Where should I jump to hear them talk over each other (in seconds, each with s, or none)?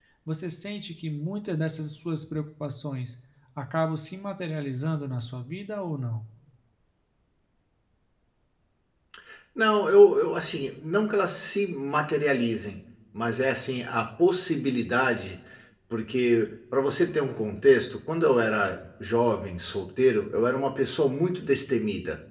none